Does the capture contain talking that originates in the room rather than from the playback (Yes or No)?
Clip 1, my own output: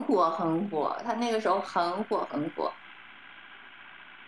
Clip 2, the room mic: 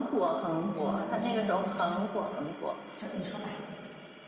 Yes